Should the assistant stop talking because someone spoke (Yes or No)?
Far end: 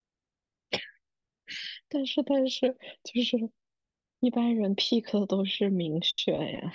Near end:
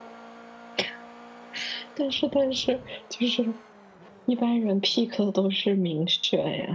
No